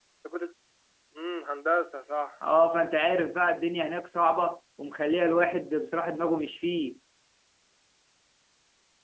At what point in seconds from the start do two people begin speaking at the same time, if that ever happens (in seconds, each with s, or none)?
none